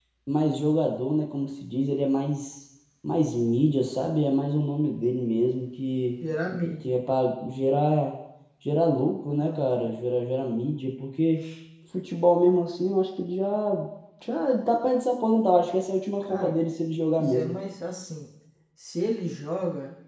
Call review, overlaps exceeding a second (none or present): none